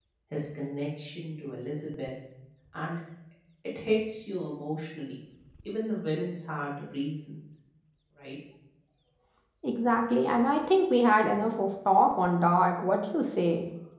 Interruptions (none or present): none